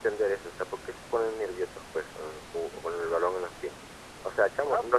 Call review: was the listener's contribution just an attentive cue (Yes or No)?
Yes